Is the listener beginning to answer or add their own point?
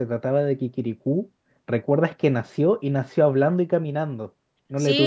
Yes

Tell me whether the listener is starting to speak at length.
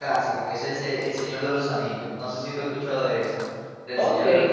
Yes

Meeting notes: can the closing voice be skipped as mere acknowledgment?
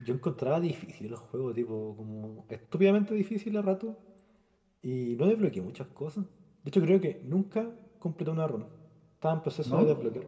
Yes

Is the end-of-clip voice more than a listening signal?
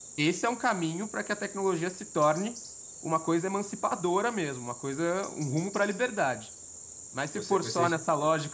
No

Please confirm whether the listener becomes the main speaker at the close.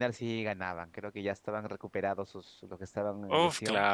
Yes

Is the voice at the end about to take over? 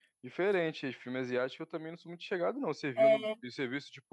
No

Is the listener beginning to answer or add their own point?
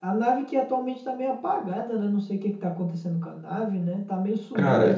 Yes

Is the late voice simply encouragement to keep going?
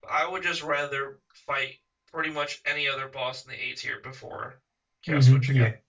No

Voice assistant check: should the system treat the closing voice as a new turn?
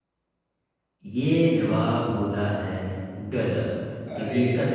No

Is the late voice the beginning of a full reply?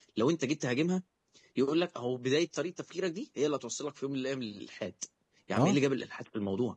No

